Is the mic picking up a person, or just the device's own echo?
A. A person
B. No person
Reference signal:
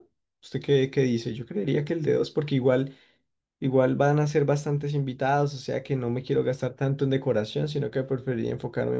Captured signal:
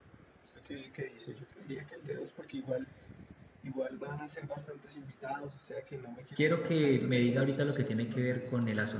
A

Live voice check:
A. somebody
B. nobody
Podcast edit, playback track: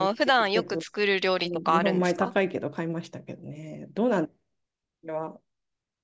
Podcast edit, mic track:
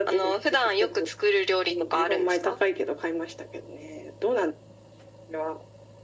B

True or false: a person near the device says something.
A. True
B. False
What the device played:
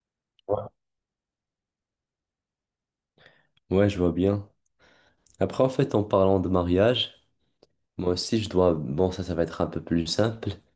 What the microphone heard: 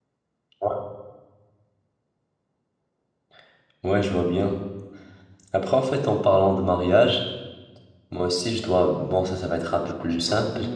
A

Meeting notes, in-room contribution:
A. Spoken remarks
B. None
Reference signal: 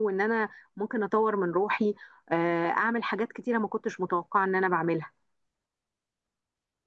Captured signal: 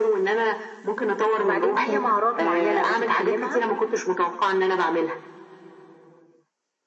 A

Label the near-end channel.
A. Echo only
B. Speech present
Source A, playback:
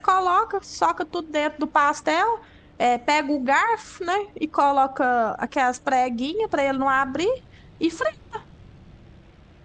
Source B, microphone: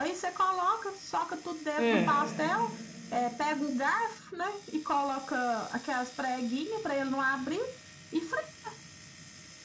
B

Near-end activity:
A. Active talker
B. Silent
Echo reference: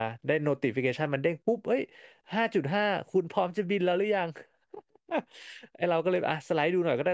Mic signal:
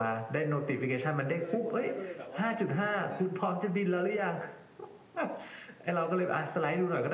A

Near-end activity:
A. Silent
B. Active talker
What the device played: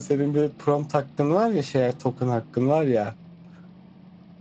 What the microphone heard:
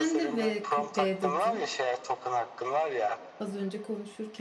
B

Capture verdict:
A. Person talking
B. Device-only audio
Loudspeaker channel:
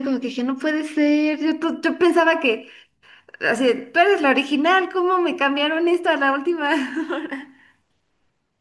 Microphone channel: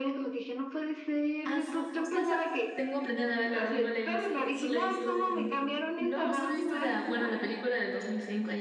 A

